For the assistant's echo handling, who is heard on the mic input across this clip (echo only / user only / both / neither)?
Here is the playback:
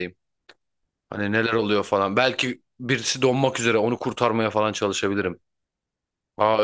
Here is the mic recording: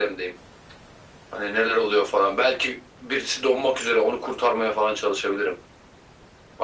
echo only